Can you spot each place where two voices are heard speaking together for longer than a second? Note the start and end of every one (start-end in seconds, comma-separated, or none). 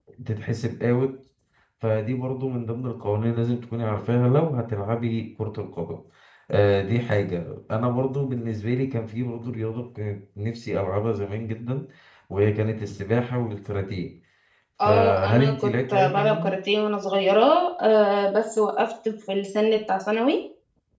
14.8-16.6